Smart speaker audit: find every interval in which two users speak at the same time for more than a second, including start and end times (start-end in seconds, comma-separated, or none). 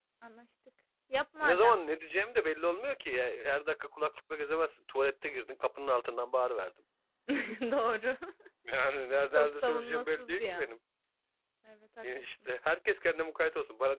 9.4-10.7